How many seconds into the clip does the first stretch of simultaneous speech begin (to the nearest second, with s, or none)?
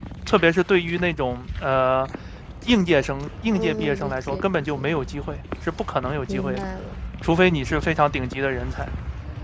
3 s